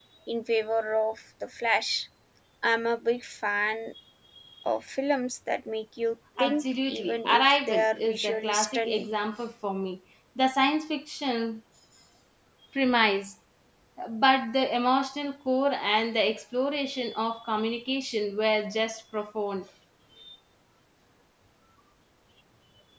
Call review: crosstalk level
present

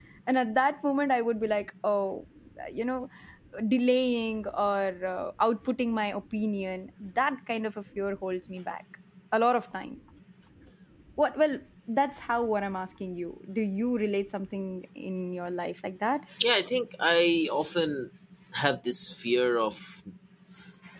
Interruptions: none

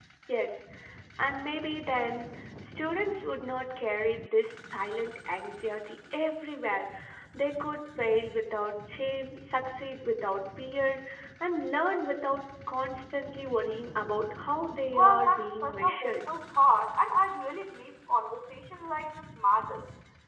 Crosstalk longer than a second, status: present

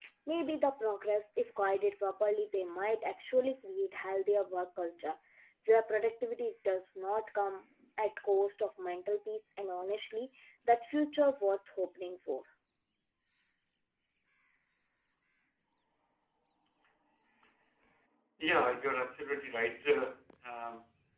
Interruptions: none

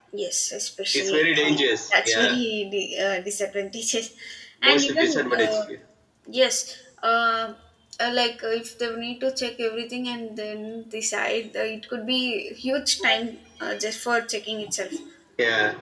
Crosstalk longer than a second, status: present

